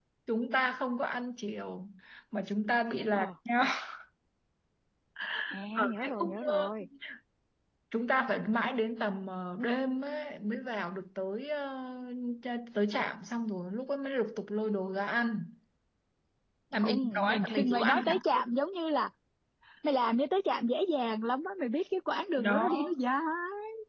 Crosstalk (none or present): present